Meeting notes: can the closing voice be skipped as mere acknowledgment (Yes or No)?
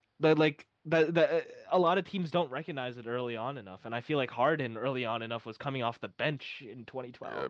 No